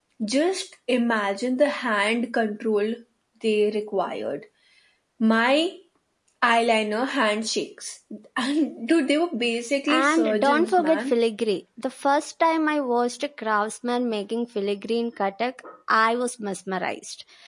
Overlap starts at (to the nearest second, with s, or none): 10 s